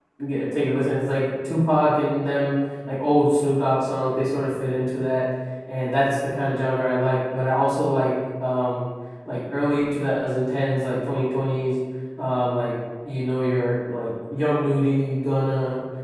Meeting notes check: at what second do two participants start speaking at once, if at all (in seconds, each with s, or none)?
none